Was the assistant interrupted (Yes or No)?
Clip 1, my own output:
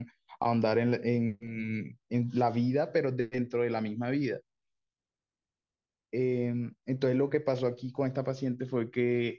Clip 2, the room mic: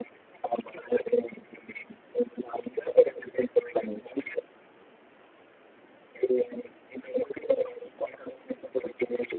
No